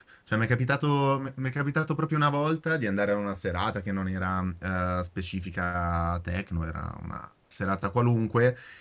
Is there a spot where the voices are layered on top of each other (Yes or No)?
No